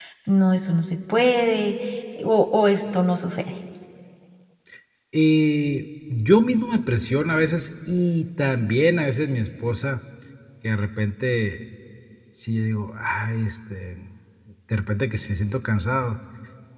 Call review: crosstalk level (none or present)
none